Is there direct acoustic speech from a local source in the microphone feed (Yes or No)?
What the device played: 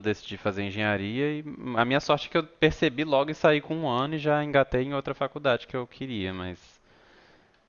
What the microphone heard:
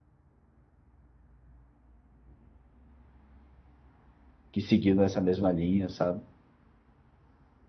Yes